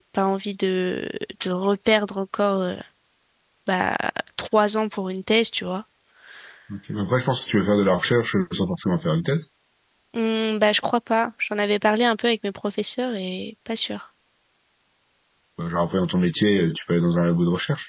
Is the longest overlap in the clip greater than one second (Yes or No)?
No